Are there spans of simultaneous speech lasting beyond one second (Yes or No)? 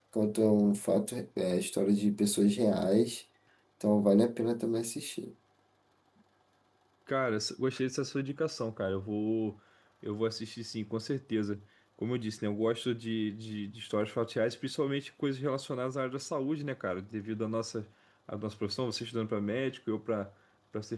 No